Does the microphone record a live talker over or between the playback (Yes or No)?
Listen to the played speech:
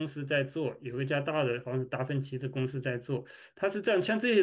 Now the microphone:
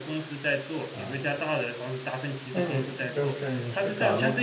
Yes